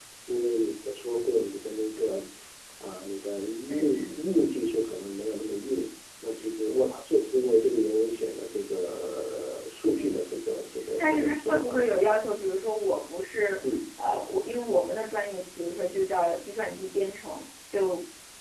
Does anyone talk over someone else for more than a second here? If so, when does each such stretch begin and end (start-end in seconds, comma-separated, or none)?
11.0-12.2